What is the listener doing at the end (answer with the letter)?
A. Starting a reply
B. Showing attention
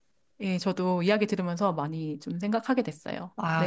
A